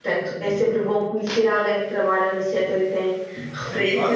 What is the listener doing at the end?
taking over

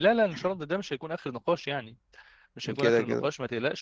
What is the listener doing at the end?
listening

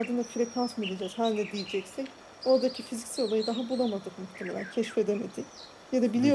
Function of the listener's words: listening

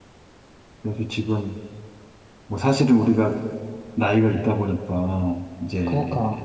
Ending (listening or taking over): listening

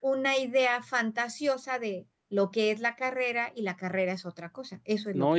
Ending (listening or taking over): taking over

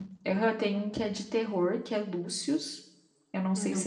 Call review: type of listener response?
listening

